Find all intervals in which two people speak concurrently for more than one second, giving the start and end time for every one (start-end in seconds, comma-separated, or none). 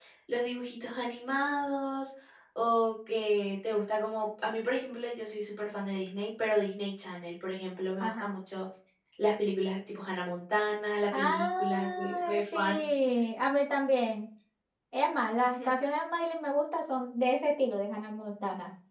11.2-12.7